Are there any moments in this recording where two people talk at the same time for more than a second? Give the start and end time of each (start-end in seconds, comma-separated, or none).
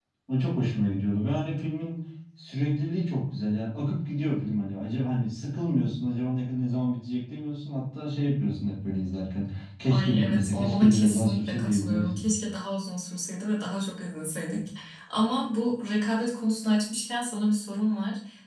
9.9-12.2